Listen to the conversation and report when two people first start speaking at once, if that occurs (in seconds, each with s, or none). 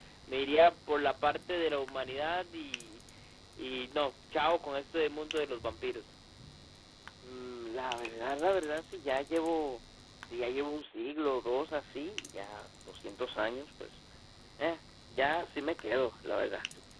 none